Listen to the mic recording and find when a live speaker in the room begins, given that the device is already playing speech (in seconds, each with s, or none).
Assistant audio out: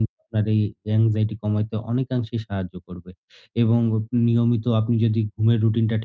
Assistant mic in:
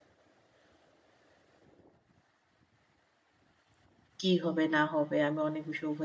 4.2 s